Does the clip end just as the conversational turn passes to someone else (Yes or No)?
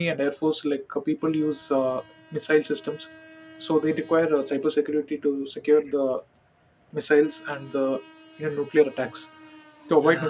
No